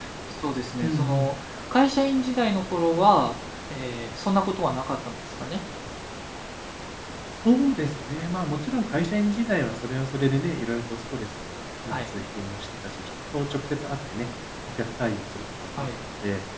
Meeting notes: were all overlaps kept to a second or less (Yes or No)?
Yes